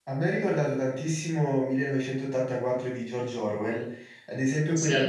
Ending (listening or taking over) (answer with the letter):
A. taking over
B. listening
B